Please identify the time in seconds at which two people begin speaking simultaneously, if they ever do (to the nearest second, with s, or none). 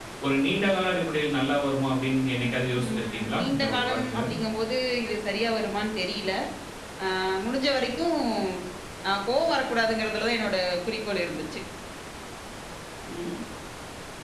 3 s